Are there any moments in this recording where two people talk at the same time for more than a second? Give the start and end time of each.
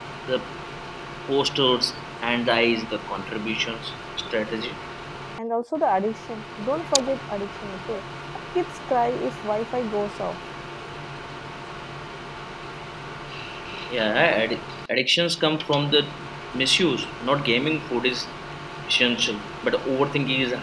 none

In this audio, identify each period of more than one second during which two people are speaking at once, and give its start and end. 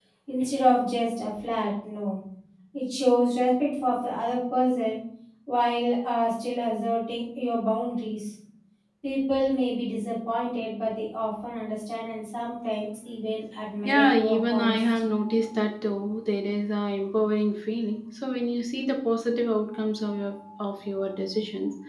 13.8-15.1

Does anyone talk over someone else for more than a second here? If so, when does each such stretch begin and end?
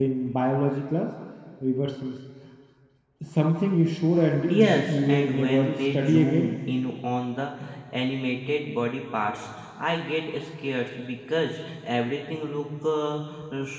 4.5-6.5

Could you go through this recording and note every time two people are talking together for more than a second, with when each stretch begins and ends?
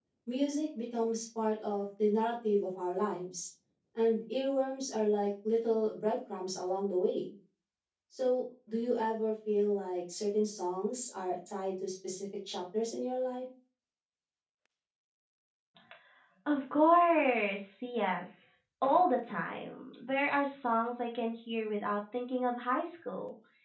none

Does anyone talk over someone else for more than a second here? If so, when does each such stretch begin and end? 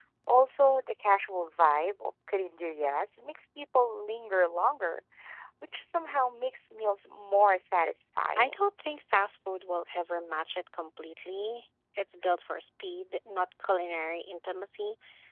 none

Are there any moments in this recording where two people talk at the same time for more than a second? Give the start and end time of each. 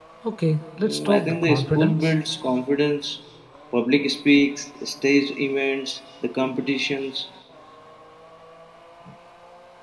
0.8-2.1

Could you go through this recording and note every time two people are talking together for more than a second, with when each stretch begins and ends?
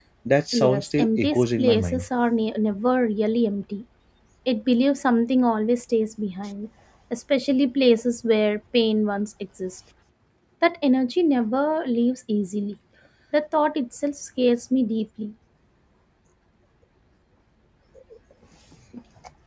0.5-2.1

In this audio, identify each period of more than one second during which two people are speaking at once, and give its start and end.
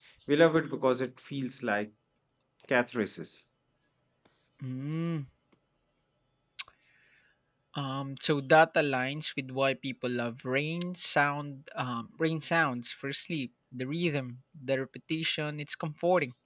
none

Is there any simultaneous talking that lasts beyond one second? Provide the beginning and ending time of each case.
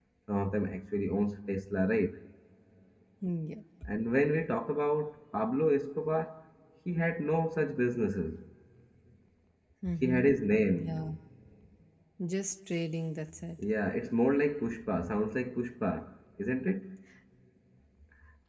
none

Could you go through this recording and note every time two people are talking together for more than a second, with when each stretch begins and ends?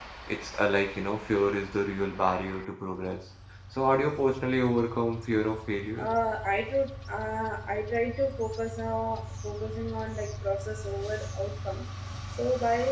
none

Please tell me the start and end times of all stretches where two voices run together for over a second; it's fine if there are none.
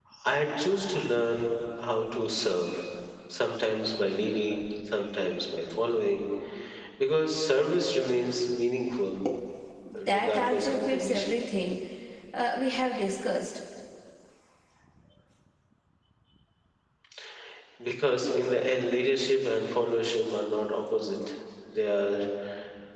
10.1-11.3

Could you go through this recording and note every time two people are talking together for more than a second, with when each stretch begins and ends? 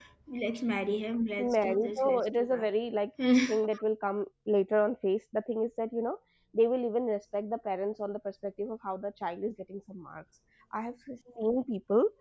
1.4-2.7

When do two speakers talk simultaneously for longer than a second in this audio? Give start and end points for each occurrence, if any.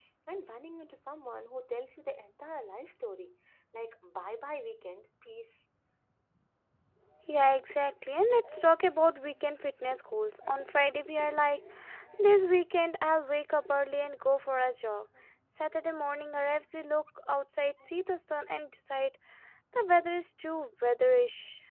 none

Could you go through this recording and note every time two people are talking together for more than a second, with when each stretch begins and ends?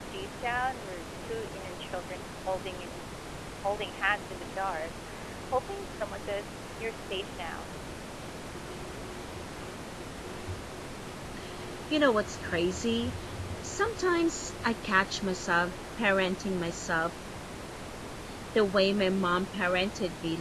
none

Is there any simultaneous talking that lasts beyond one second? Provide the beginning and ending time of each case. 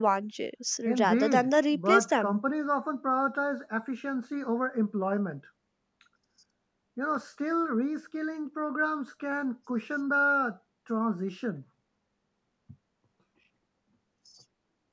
0.9-2.4

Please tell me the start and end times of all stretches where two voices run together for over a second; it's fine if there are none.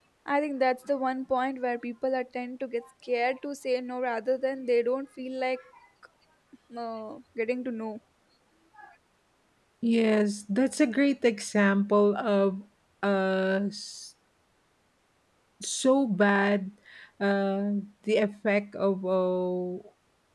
none

